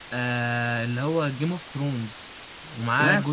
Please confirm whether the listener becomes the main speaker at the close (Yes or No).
No